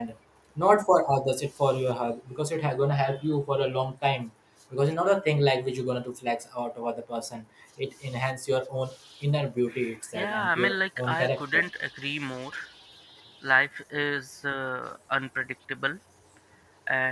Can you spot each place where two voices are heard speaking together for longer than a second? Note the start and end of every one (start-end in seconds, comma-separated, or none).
10.1-11.7